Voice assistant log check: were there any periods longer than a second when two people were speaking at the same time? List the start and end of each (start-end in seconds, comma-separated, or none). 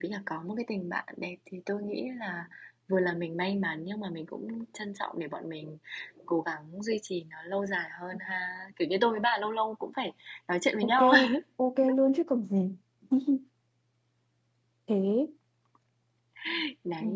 none